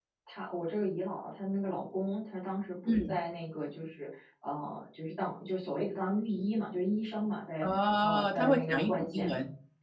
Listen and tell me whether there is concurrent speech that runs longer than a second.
Yes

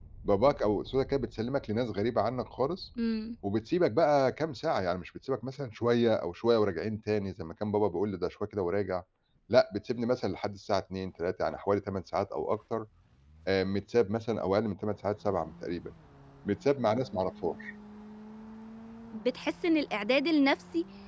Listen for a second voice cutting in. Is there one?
No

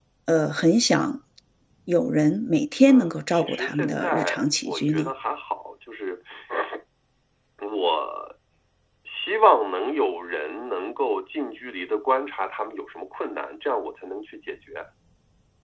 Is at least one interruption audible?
Yes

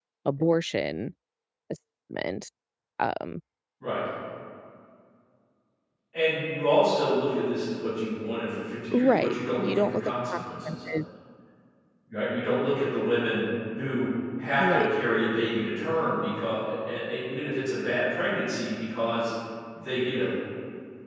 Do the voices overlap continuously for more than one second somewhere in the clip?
Yes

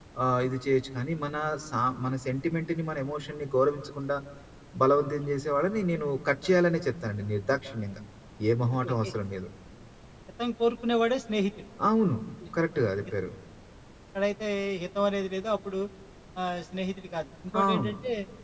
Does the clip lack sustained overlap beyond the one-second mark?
Yes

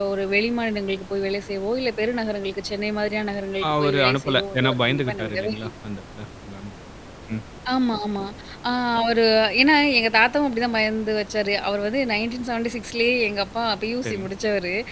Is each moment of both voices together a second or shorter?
No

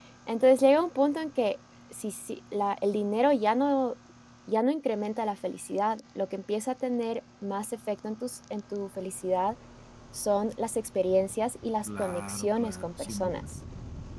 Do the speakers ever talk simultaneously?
Yes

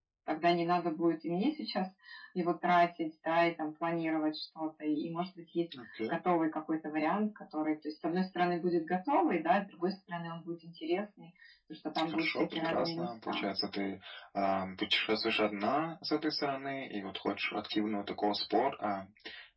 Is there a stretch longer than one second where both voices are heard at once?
Yes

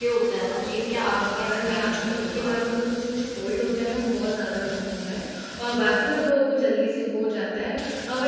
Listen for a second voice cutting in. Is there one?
Yes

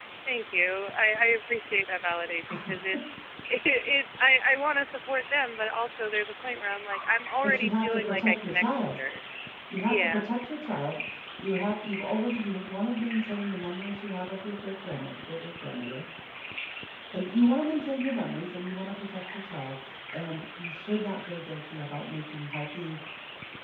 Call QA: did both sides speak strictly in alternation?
No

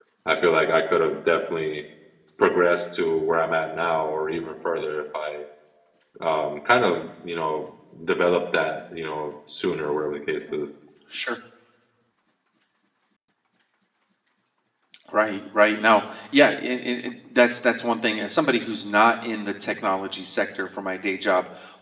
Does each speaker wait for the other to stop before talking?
Yes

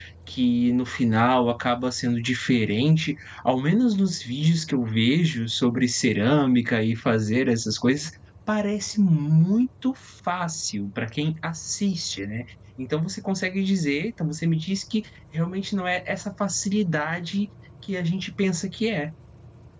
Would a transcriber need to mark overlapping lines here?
No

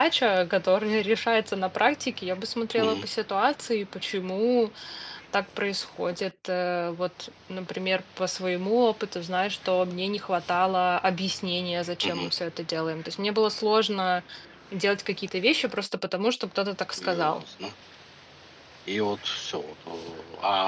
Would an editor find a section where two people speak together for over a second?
No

